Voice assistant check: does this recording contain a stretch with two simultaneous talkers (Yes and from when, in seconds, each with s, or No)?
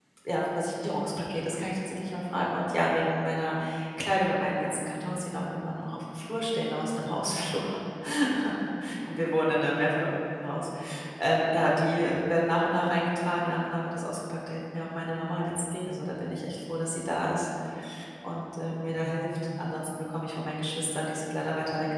No